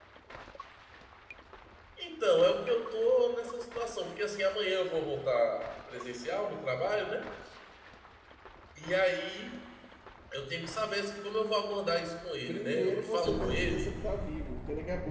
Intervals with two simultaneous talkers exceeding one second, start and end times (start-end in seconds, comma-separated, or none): 12.5-13.9